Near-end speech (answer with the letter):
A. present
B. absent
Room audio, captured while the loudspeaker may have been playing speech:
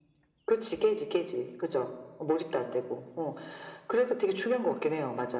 B